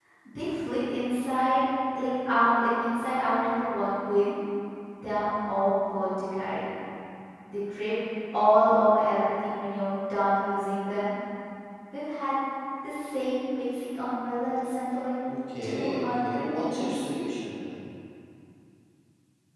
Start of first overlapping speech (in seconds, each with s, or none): 15.6 s